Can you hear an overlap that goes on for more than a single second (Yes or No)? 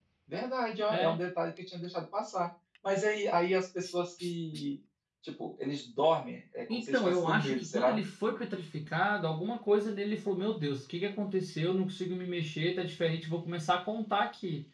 Yes